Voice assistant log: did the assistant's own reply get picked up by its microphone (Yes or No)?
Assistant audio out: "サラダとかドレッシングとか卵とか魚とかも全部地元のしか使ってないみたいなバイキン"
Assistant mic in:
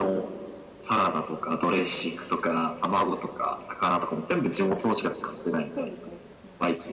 Yes